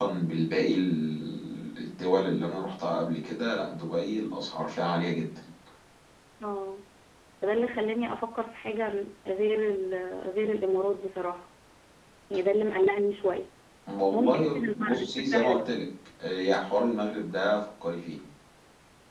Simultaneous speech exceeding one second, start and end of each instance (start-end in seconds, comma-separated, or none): 14.1-15.8